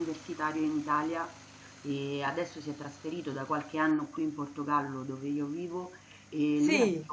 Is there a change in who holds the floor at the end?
No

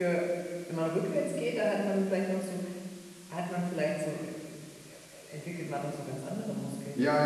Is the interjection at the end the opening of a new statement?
Yes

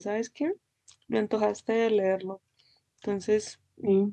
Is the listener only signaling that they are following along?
No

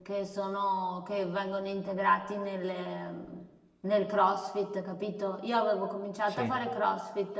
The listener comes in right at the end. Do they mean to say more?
No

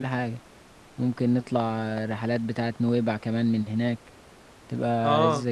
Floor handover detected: Yes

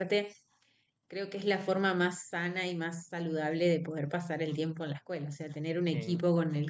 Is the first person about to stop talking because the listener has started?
No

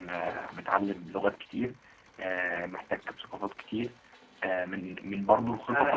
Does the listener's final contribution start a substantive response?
Yes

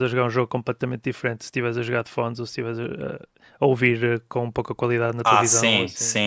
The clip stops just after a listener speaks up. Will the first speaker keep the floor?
No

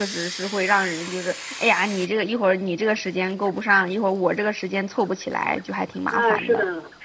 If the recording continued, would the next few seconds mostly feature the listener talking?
Yes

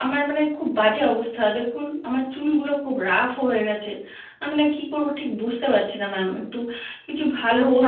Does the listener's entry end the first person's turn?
Yes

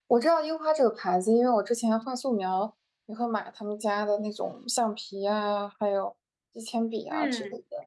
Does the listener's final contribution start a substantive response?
Yes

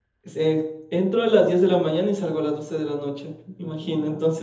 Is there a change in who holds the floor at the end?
No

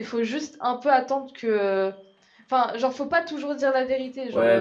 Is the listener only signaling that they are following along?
No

